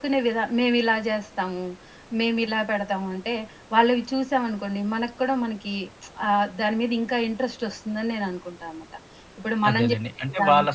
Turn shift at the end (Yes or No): Yes